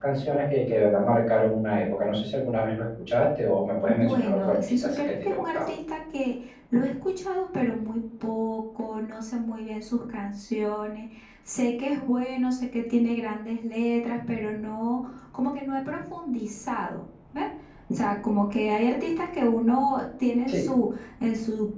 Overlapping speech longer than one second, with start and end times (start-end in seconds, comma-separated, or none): 3.9-5.7